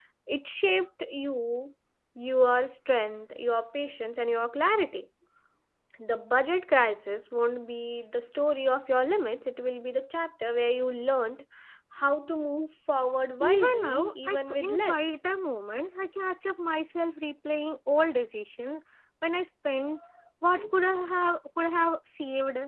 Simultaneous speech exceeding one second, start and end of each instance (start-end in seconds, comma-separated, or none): 13.4-15.0